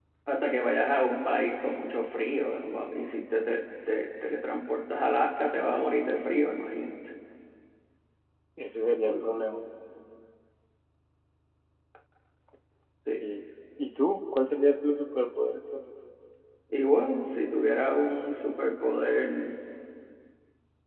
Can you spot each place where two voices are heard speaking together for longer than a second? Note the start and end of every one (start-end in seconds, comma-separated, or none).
none